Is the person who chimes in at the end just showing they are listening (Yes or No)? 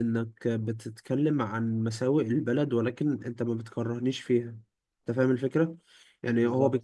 Yes